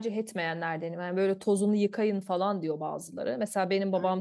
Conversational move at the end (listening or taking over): listening